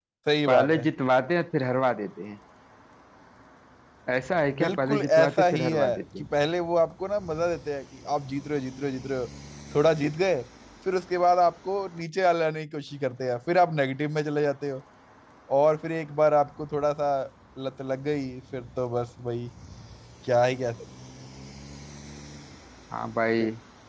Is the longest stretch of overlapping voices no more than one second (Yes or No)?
No